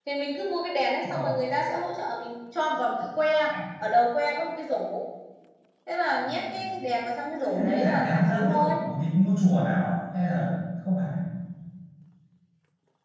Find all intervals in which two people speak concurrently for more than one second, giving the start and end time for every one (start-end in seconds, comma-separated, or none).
7.3-8.8